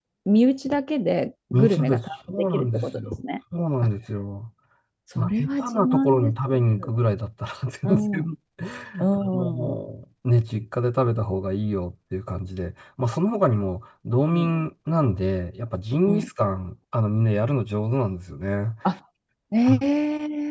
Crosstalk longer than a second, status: present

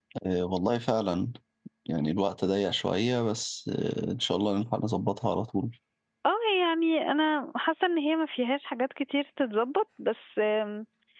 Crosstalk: none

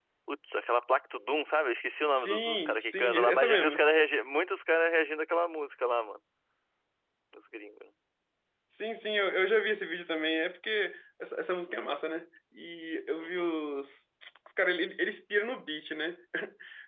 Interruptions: present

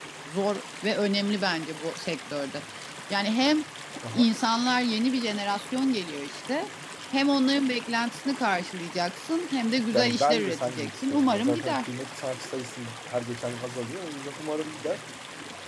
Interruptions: present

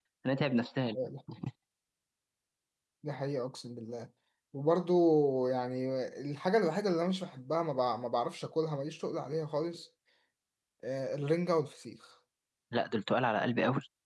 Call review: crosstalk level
none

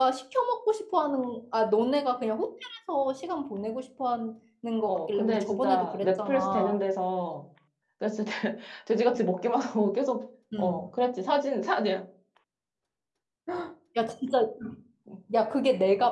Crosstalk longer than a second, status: present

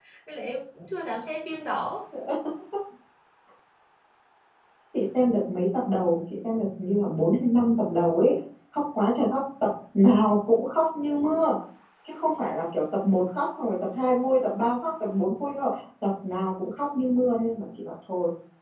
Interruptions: none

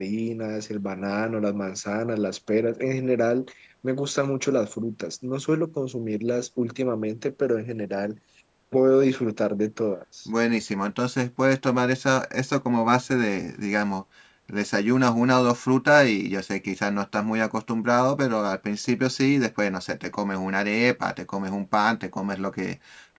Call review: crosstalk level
none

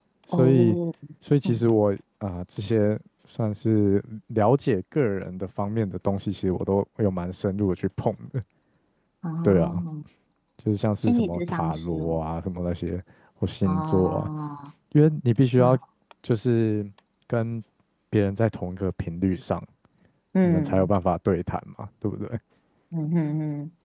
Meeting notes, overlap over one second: present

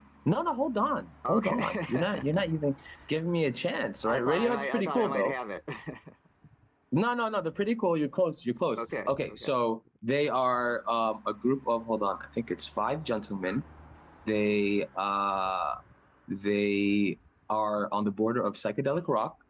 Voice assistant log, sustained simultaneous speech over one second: present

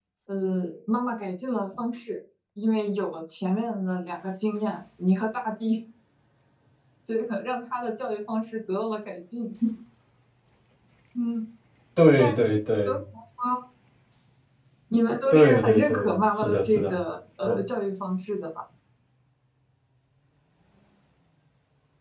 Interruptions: present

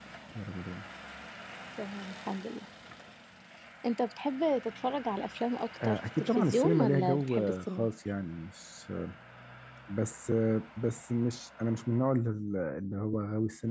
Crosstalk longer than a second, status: present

